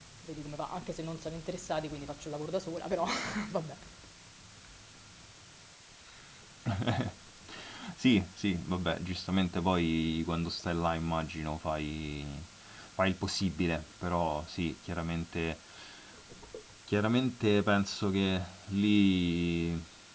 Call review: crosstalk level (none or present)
none